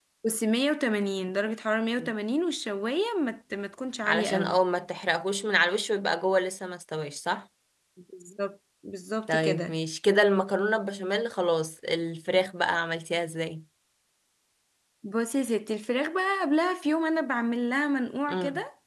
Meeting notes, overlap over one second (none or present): none